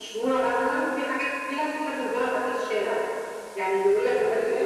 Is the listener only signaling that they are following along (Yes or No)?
Yes